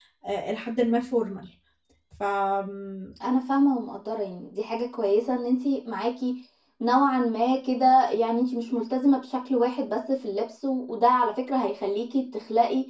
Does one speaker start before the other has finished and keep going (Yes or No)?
No